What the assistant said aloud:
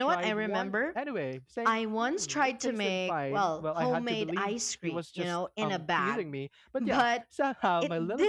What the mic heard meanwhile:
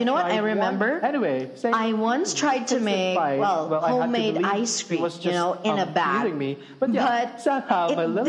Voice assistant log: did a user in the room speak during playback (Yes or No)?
No